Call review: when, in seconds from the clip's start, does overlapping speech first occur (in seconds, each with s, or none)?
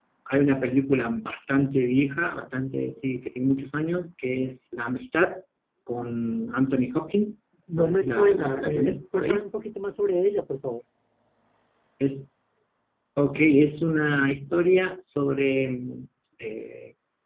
7.7 s